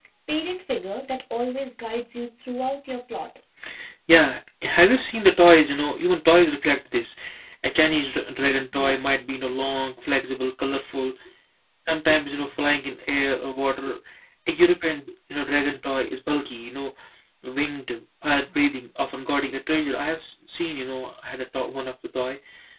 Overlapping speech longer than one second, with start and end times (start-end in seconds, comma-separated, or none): none